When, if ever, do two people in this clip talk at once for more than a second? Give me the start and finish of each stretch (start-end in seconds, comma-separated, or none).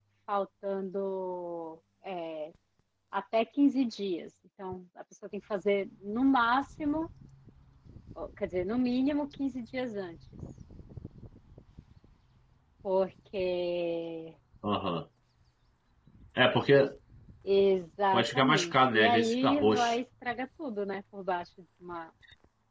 18.1-19.9